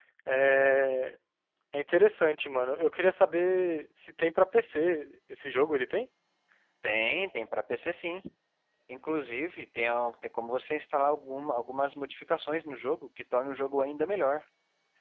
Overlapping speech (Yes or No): No